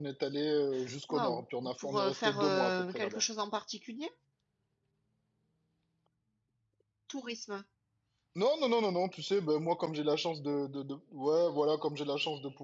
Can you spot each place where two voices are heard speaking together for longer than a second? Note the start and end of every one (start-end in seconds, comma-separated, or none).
1.8-3.2